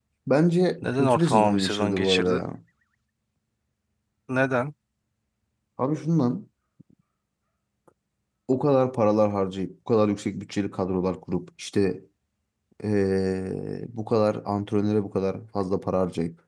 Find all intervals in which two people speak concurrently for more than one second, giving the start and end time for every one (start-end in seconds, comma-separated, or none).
0.8-2.4